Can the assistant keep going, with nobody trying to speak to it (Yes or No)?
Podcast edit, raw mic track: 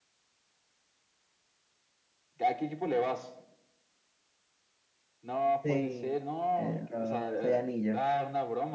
No